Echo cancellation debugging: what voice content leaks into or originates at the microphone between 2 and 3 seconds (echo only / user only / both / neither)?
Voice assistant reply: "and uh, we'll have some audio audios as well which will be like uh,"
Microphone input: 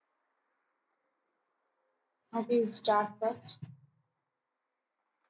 user only